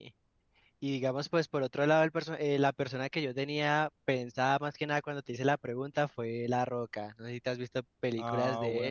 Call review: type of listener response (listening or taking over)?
taking over